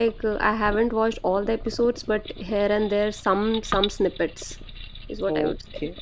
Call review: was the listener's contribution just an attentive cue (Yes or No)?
No